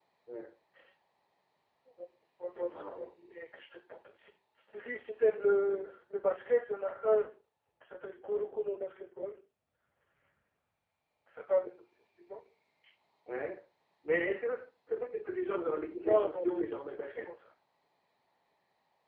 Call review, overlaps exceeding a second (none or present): present